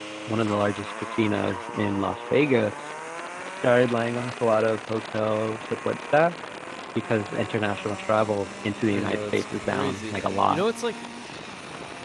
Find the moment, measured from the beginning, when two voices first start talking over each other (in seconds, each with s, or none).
8.9 s